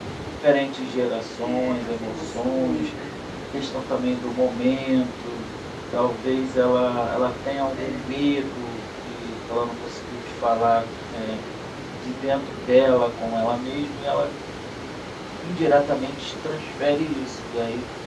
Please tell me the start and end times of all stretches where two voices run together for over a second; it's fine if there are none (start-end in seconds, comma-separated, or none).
1.4-2.9